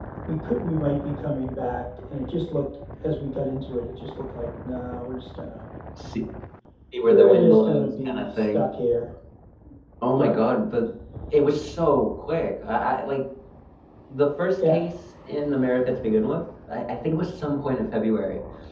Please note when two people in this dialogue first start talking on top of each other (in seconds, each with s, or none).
7.1 s